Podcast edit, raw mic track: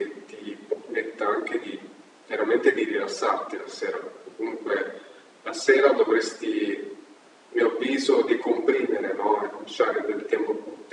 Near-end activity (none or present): none